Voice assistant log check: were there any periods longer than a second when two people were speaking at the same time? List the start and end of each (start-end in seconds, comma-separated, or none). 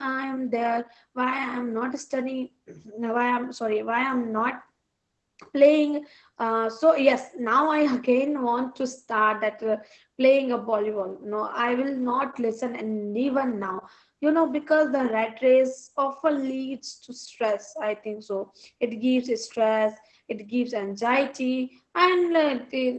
none